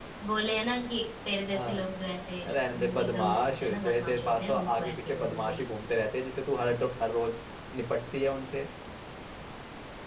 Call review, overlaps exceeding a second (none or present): present